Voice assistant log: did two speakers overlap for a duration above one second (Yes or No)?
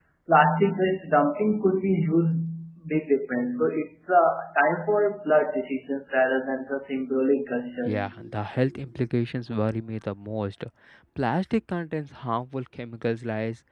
No